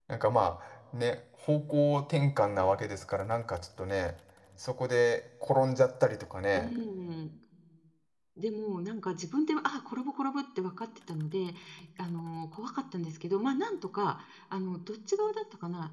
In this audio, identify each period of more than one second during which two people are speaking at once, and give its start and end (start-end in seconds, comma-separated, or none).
none